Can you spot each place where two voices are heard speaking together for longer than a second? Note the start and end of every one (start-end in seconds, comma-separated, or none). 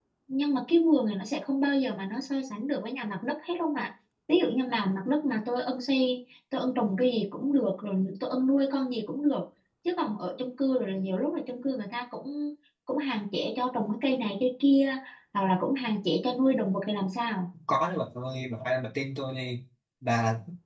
none